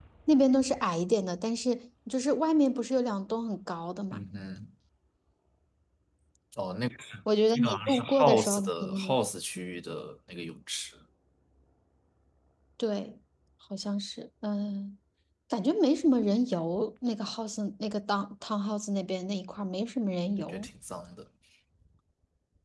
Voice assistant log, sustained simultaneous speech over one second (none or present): present